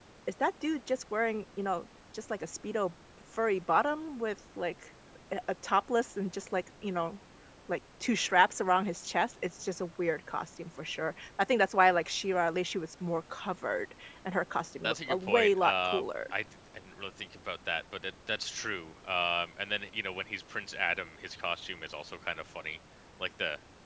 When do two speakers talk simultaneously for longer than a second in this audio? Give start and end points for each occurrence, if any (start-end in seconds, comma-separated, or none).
14.8-16.0